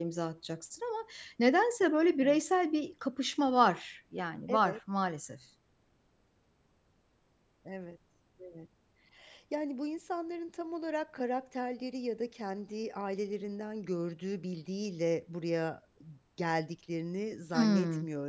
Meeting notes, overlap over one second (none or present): none